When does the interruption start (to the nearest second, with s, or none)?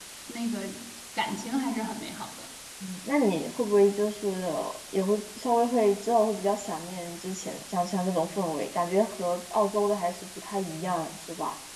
none